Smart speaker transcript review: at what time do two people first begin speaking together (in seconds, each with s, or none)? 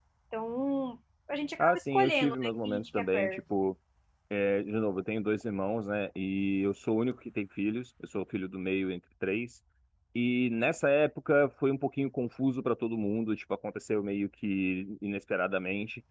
1.6 s